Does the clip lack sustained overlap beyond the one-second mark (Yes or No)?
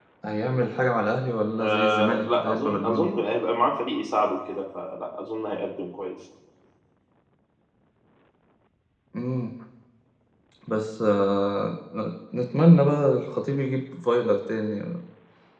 No